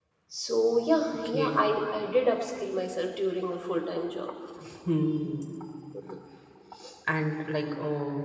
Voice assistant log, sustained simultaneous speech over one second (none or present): none